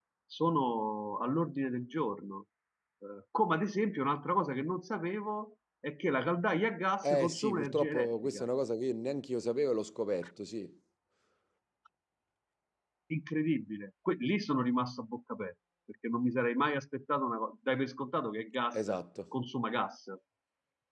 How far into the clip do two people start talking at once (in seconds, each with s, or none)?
7.0 s